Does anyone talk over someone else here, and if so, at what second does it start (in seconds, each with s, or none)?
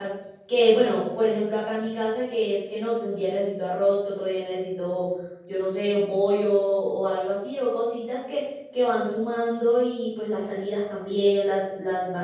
none